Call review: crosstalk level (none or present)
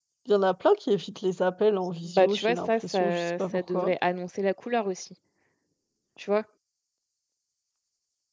present